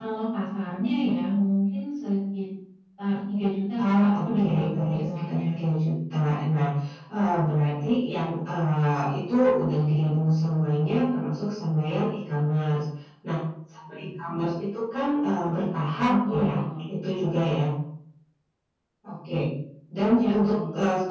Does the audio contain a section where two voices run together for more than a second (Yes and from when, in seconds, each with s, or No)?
Yes, from 3.8 s